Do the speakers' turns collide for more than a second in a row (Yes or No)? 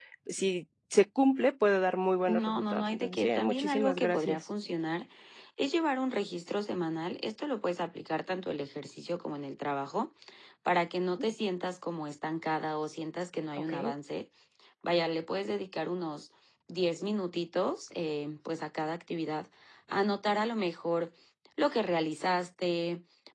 Yes